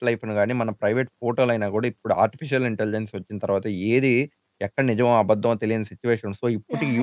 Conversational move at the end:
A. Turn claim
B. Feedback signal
A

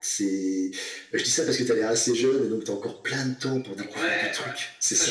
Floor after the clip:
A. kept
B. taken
B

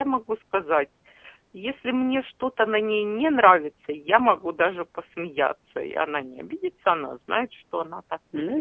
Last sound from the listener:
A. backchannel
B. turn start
B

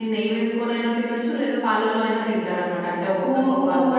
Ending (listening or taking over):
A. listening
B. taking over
B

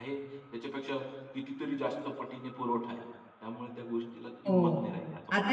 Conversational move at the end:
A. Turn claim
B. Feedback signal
A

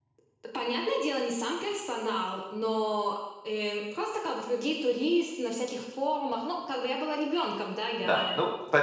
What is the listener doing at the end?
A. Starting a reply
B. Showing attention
A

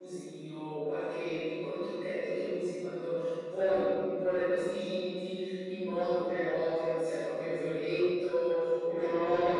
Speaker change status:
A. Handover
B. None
B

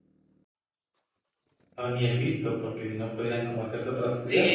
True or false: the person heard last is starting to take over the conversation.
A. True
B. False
A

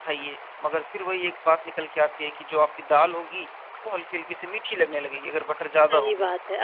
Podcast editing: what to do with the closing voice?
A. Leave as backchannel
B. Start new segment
B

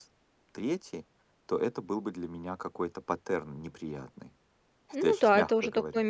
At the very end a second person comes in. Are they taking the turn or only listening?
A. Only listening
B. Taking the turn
B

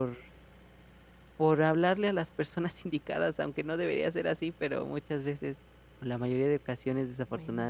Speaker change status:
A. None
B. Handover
A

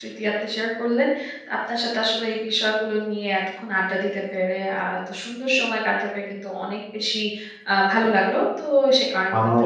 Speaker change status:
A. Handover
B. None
A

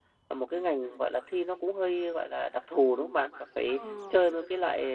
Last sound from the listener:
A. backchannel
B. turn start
A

